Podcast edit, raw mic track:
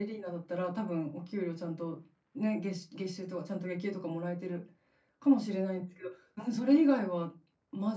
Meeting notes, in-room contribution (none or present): none